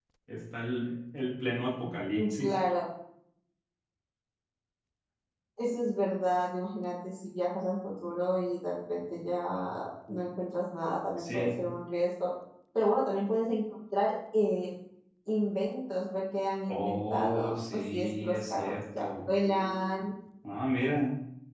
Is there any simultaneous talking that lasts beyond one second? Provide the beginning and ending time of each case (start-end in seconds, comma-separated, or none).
16.7-19.3